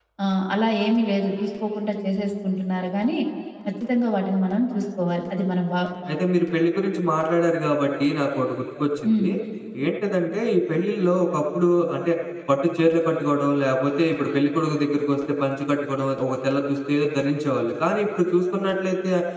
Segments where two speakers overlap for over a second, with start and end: none

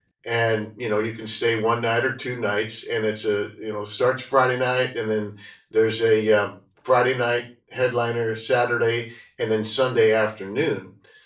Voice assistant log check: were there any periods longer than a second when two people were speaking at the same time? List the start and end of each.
none

